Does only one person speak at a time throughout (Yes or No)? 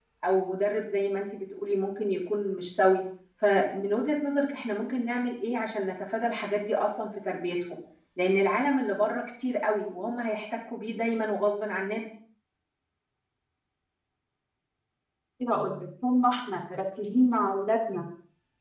Yes